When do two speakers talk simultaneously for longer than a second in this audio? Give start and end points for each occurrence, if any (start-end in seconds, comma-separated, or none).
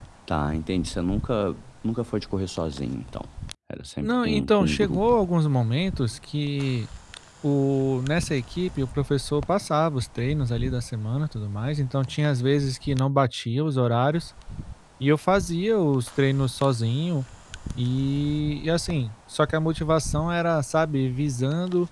4.0-5.3